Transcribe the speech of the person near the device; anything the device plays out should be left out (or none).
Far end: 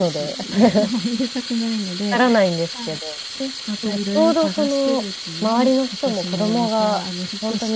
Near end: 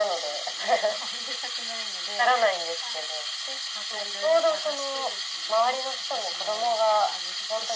none